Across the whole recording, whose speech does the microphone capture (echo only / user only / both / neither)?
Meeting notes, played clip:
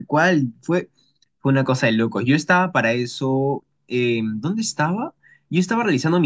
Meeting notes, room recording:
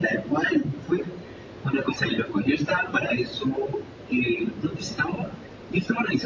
echo only